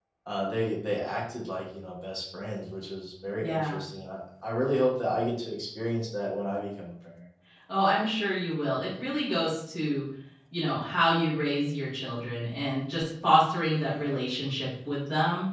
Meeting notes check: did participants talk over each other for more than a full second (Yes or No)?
No